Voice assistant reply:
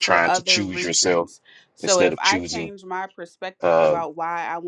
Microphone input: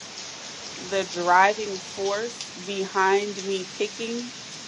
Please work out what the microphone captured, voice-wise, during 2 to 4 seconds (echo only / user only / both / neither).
user only